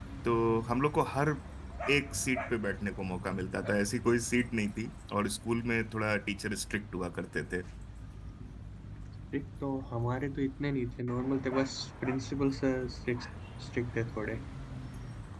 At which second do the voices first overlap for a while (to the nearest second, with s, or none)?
none